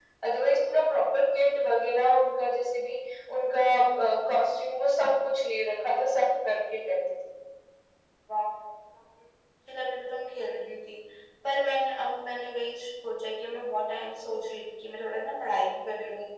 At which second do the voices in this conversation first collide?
none

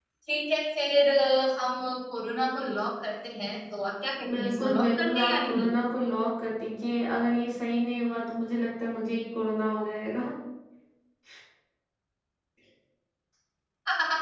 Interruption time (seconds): 4.3 s

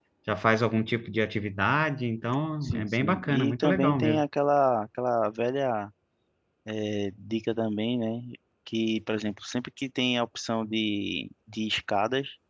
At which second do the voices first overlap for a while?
2.6 s

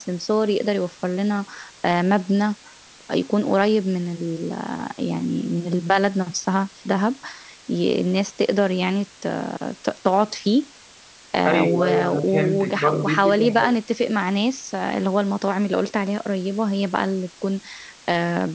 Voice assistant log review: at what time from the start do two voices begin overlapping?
11.5 s

